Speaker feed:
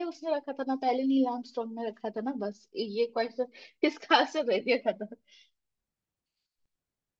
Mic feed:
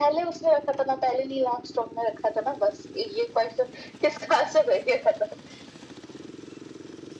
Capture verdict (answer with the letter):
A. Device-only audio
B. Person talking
A